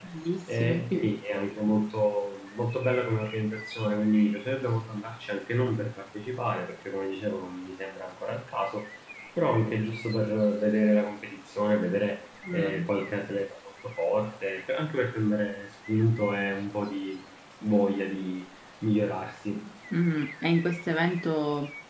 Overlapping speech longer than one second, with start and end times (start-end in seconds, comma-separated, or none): none